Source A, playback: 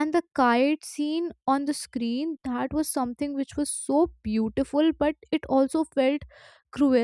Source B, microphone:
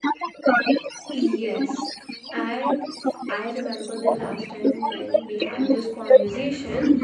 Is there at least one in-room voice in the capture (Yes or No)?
Yes